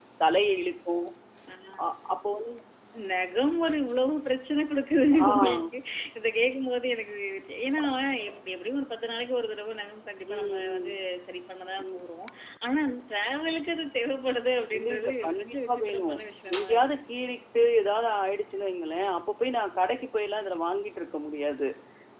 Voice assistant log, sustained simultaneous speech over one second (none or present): present